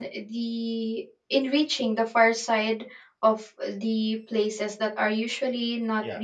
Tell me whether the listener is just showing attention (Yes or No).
Yes